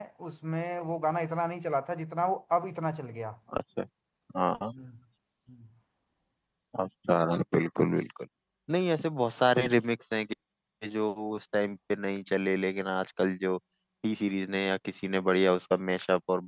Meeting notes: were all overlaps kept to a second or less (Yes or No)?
Yes